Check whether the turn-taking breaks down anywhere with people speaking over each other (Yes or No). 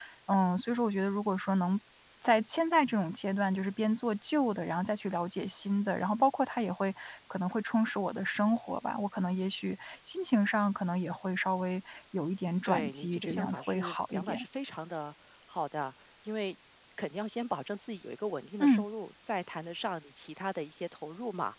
Yes